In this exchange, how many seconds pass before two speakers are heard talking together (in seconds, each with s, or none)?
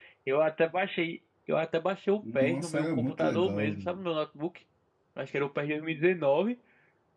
2.2 s